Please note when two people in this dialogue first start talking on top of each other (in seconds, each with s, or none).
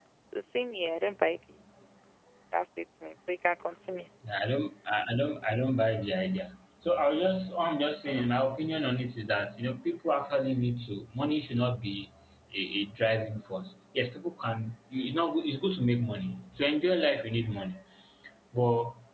none